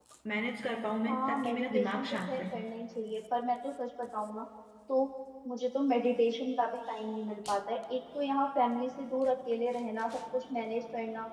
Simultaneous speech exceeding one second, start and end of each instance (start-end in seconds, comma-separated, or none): 1.1-2.4